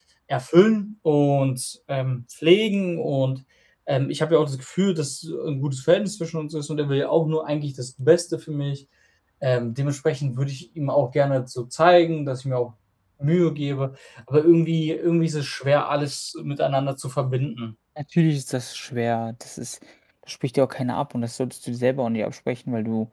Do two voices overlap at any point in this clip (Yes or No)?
No